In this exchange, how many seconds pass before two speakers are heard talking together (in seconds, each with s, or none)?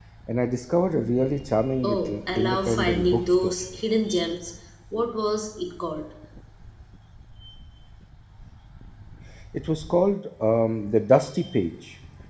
1.8 s